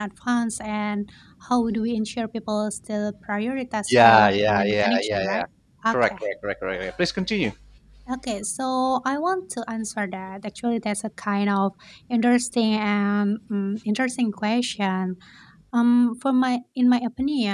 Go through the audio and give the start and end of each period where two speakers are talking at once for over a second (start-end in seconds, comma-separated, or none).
3.9-5.4